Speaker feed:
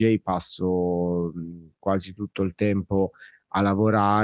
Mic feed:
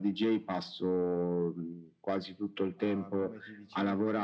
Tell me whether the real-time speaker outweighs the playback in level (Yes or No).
No